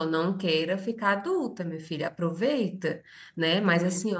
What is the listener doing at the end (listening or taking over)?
listening